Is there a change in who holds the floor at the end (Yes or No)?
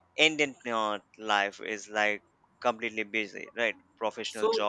No